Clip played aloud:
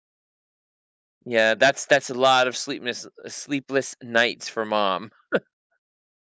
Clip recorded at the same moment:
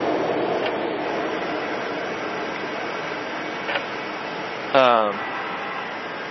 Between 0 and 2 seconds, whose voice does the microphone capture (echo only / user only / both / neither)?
neither